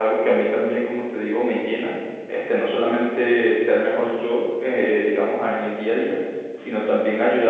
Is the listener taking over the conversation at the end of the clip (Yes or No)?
No